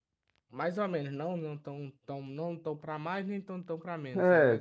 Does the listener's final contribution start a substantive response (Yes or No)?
Yes